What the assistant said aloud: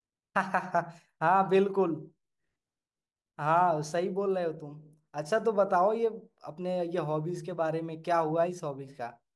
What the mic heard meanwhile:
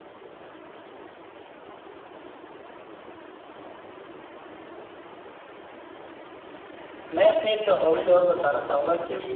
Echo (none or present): none